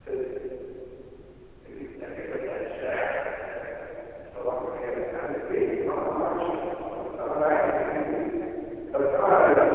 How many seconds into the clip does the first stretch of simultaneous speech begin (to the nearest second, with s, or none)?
none